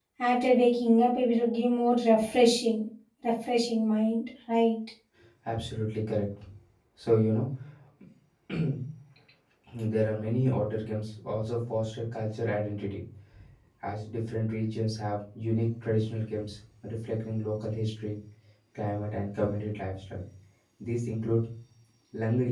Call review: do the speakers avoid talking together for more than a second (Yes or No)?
Yes